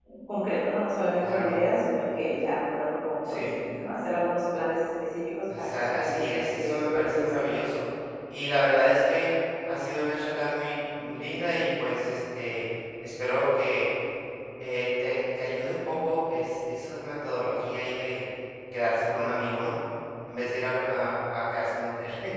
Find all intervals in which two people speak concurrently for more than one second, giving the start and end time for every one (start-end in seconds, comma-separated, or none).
5.6-7.4